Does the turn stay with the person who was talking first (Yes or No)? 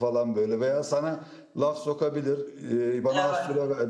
Yes